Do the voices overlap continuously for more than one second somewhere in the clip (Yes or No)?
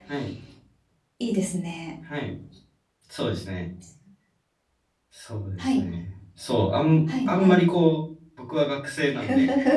No